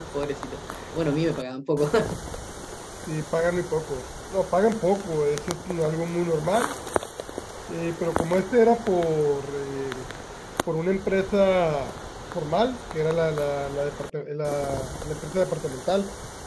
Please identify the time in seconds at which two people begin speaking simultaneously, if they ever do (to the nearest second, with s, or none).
none